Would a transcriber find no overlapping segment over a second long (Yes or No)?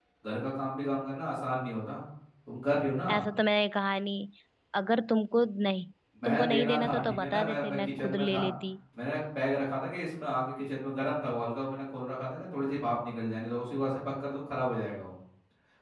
No